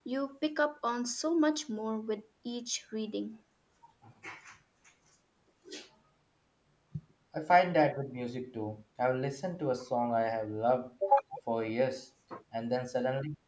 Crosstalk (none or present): none